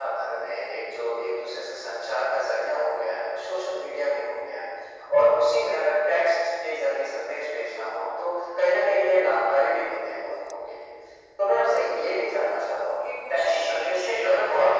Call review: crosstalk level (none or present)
present